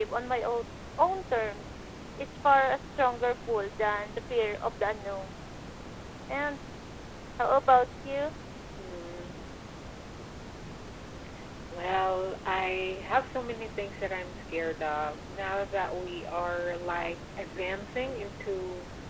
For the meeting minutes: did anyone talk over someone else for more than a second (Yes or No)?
No